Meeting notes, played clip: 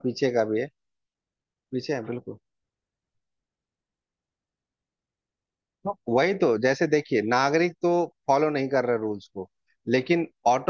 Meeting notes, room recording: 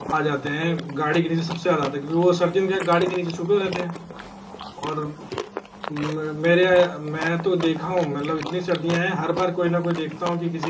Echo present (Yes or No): No